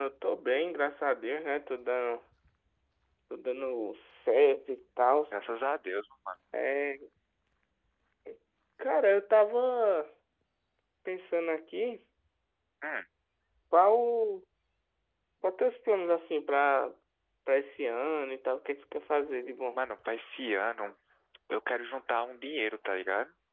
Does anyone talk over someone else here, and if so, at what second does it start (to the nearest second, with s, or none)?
none